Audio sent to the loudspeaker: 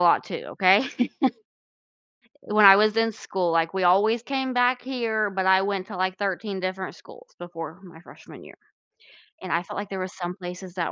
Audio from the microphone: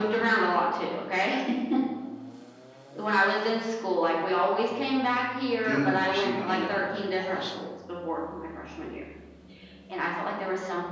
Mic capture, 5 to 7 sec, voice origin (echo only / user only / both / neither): both